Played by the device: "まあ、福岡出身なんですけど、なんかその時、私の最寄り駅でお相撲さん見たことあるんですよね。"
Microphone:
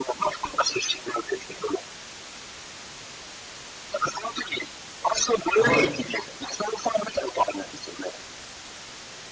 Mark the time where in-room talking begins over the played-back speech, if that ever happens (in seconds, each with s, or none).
5.5 s